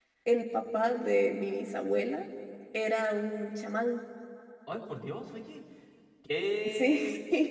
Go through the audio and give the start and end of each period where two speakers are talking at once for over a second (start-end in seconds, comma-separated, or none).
none